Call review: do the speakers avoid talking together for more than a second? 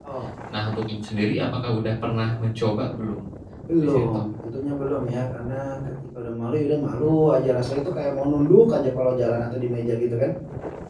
Yes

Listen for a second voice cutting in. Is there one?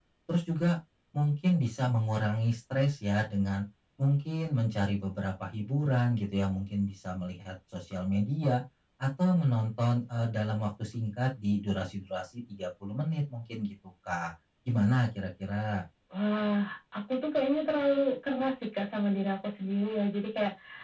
No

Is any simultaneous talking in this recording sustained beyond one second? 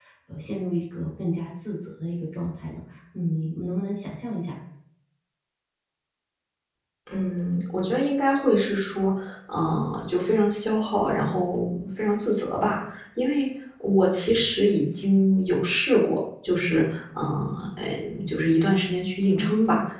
No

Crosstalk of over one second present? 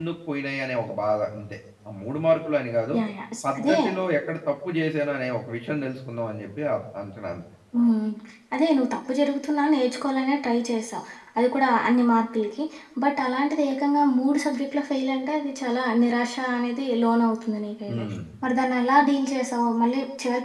No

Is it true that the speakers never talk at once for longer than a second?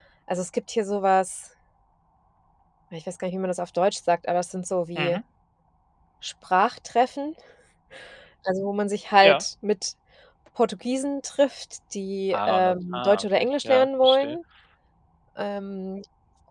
No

